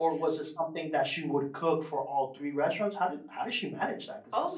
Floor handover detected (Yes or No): Yes